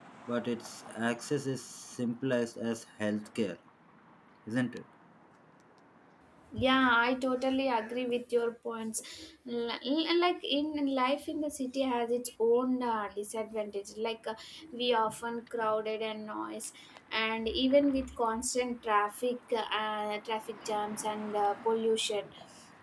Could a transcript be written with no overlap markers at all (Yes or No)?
Yes